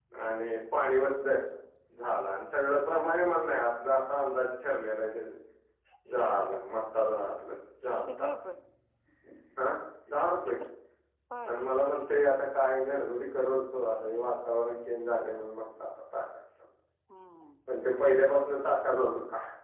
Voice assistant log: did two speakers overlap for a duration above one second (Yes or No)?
No